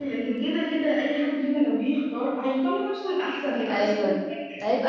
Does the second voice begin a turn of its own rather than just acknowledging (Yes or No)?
Yes